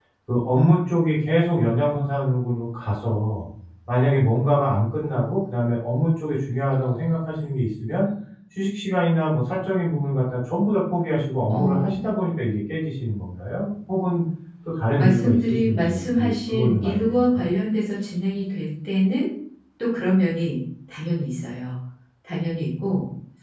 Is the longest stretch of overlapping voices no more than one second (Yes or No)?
No